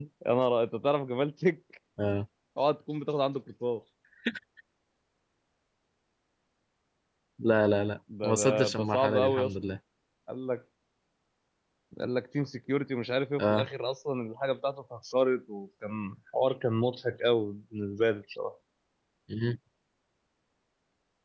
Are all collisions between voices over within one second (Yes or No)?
No